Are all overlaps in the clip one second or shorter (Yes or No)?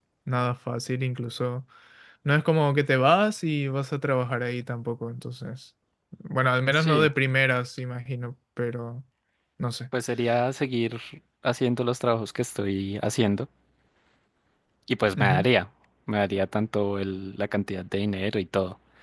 Yes